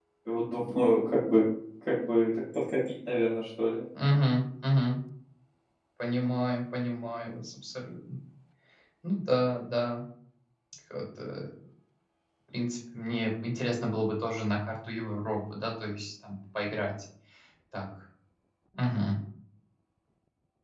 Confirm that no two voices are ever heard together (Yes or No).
Yes